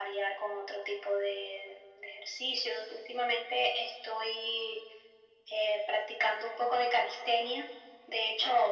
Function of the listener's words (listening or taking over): listening